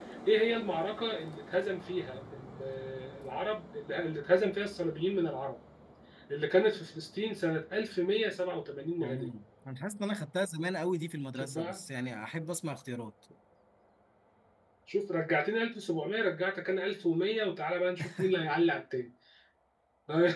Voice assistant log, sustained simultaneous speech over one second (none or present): none